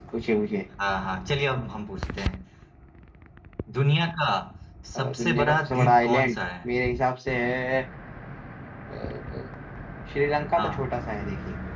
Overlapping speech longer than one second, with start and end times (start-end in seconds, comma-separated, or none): 5.0-6.4